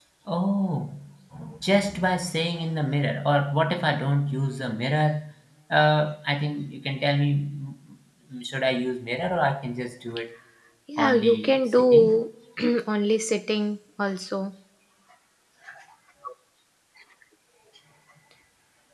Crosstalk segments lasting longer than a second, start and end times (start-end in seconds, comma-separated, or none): 11.0-12.2